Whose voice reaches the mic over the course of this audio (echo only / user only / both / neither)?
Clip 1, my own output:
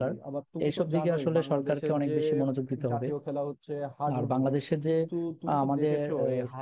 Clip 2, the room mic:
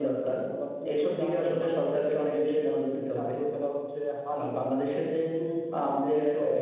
echo only